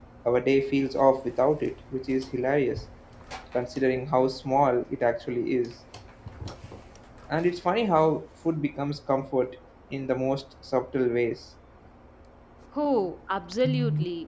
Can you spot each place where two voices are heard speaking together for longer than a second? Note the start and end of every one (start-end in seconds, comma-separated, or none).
none